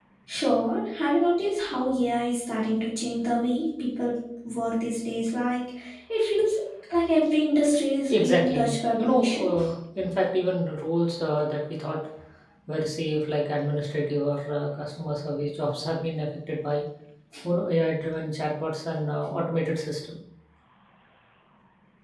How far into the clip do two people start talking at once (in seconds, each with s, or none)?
8.1 s